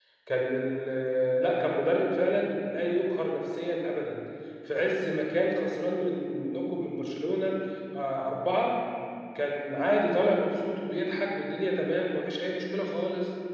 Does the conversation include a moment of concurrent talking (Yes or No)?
No